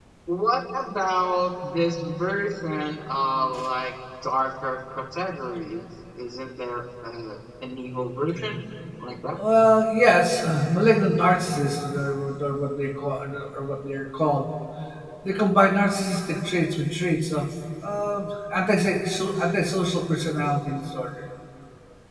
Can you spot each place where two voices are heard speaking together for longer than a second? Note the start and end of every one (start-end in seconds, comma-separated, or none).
none